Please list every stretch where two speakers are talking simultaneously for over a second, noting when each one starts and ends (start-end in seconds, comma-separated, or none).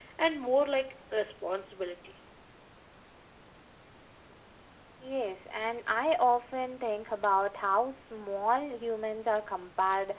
none